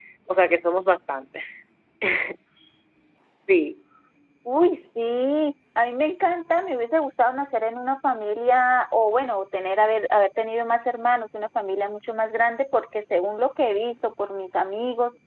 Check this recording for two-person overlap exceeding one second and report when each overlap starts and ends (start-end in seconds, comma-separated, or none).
none